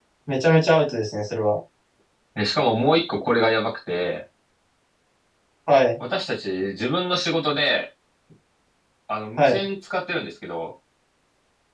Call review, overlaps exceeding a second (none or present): none